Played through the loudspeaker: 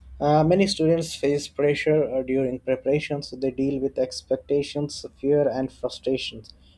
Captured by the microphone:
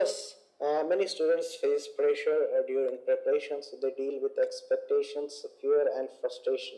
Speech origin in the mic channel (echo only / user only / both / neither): echo only